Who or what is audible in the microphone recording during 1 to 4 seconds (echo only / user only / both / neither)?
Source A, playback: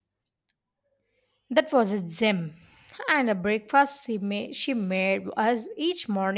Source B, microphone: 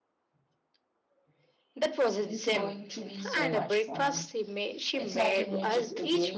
both